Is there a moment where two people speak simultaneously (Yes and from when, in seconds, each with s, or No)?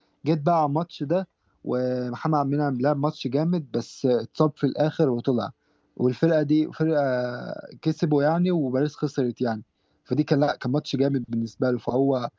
No